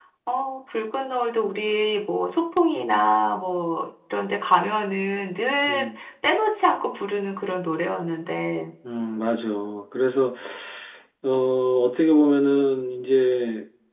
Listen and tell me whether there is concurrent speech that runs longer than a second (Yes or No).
No